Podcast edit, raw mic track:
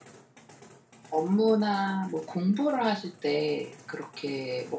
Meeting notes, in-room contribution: present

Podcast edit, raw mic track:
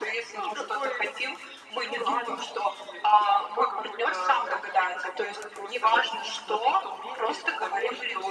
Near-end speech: none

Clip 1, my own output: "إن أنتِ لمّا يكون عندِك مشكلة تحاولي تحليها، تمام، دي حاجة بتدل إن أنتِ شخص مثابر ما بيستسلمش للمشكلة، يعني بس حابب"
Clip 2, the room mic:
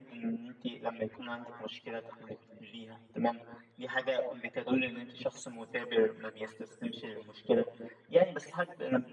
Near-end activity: none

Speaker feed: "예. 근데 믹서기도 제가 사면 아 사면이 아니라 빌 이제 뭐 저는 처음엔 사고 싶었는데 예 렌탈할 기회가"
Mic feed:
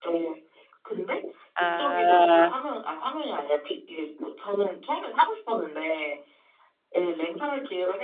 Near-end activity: present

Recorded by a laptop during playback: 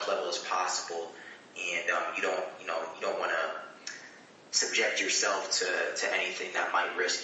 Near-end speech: none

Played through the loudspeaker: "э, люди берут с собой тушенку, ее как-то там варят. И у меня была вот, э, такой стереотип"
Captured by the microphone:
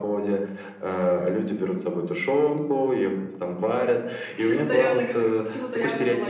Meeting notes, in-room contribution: present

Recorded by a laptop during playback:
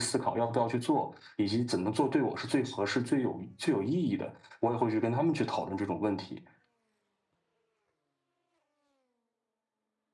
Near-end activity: none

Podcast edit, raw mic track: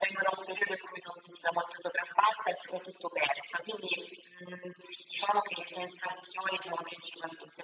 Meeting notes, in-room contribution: none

